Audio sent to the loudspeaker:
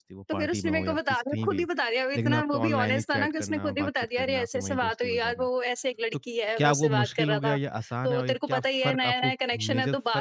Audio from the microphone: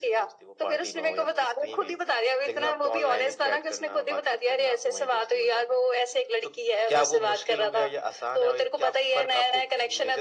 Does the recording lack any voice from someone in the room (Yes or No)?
Yes